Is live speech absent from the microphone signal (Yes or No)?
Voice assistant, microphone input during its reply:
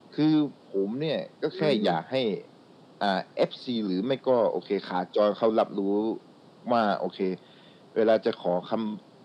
No